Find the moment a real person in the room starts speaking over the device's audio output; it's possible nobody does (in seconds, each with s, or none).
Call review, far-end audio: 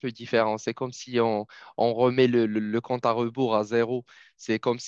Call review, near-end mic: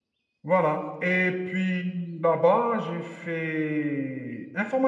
0.4 s